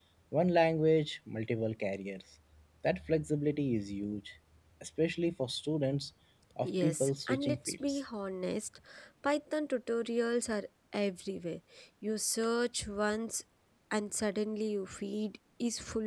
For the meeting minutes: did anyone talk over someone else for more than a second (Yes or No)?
Yes